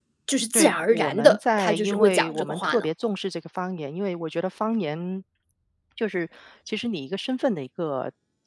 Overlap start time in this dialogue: 0.5 s

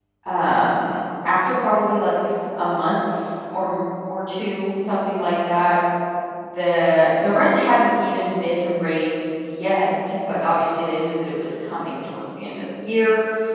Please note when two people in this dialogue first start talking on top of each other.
none

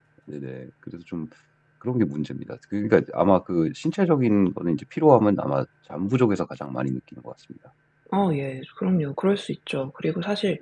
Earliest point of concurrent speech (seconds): none

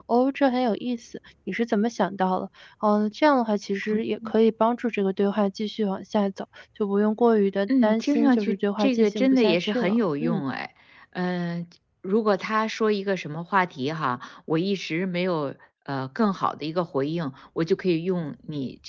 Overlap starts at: 7.7 s

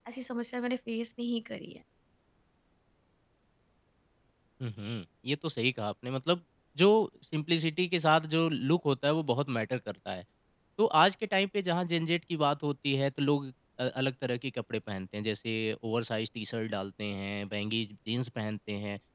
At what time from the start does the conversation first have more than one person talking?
none

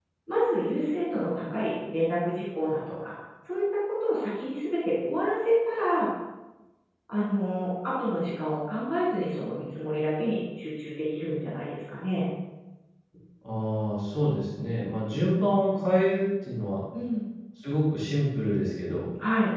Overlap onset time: none

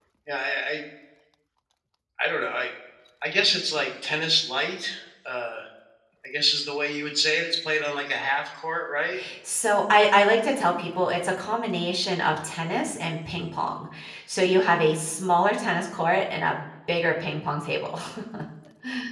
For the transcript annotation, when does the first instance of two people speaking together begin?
none

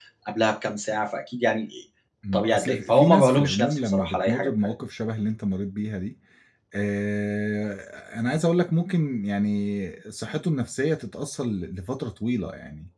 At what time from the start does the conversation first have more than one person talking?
2.3 s

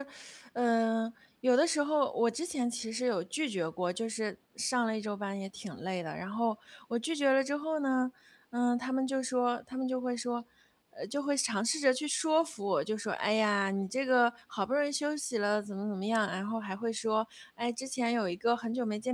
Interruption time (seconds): none

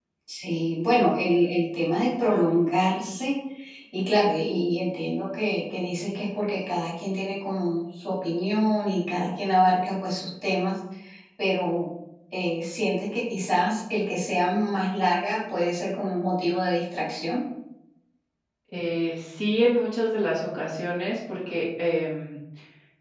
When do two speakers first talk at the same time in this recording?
none

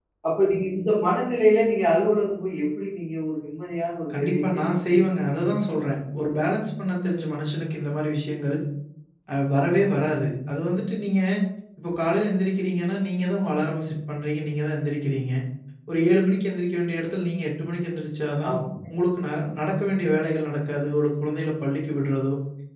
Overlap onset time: 4.1 s

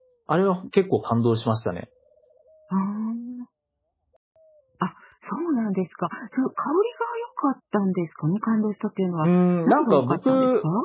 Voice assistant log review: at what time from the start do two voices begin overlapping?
9.2 s

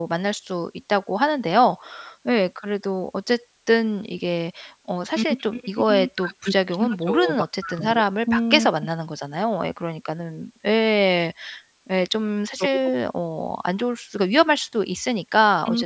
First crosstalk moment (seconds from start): 6.2 s

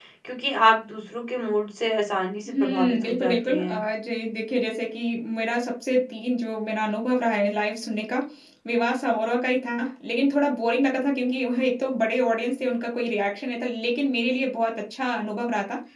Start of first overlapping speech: 2.5 s

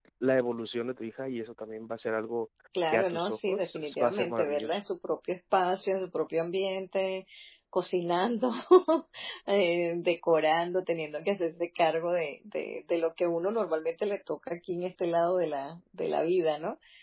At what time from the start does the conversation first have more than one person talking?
2.8 s

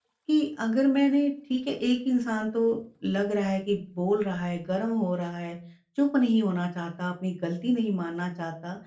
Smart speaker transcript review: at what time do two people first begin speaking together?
none

